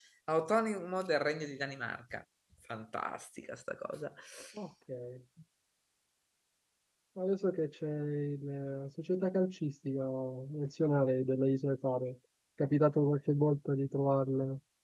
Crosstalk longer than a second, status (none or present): none